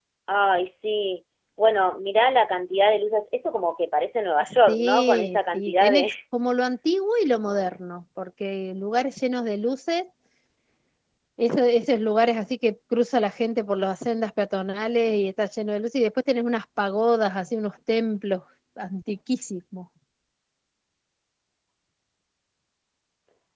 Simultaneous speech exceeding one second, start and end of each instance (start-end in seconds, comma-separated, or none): 4.7-6.1